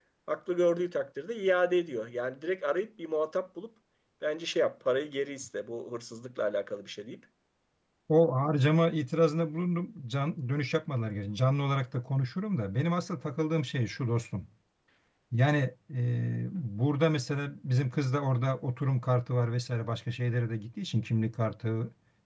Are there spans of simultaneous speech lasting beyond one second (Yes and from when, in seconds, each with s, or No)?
No